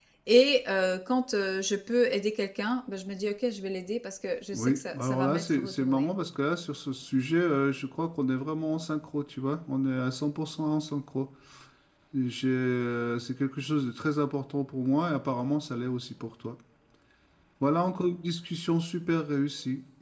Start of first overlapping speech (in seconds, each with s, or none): 4.5 s